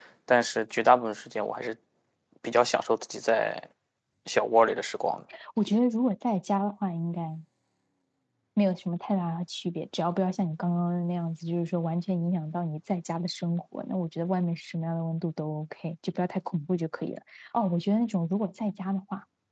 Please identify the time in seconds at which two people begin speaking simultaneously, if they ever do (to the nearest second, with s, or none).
none